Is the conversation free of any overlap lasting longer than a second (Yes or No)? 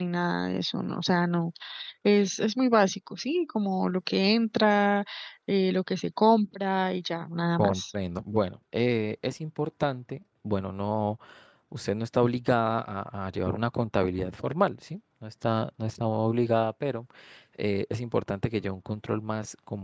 Yes